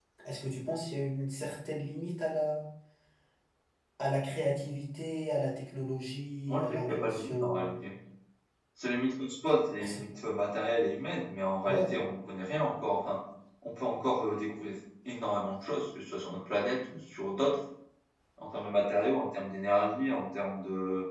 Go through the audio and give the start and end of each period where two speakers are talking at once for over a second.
6.5-7.8

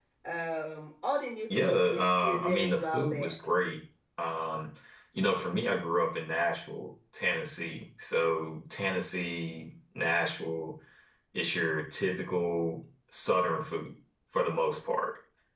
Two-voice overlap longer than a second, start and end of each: 1.6-3.4

